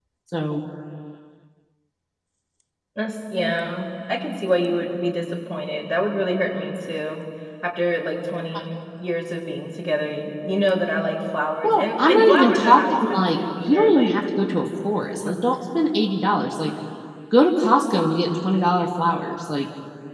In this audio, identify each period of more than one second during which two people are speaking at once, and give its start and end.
11.6-14.2

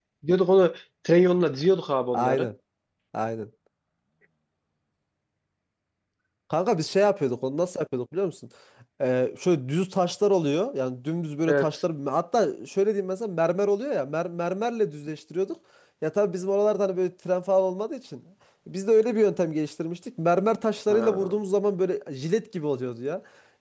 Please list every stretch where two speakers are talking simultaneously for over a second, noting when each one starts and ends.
none

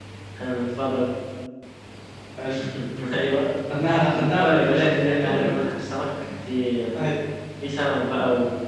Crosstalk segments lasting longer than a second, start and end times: 4.1-5.5

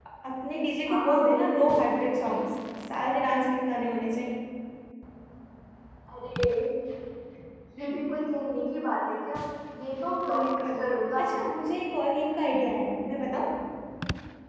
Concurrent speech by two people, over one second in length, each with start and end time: 0.9-2.1

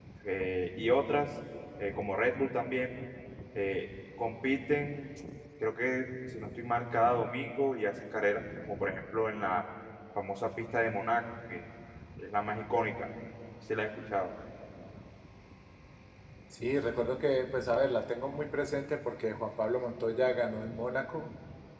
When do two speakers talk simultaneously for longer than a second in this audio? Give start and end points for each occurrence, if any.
none

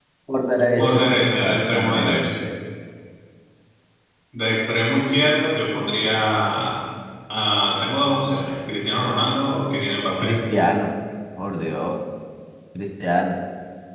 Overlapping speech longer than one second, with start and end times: 0.8-2.3

